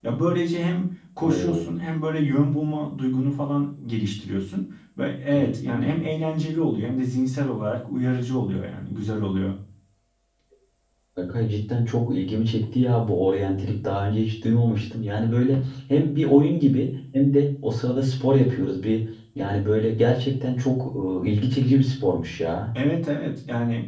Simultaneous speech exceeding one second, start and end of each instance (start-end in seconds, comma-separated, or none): none